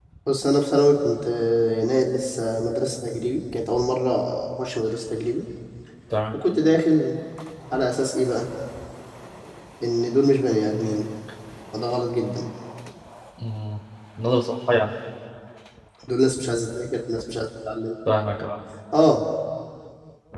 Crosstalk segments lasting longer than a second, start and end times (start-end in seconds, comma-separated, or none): none